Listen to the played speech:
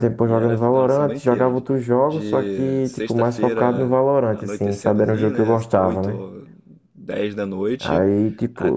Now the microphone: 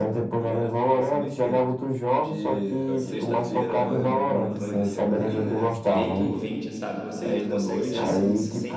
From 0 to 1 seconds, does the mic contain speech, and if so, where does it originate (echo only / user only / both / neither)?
echo only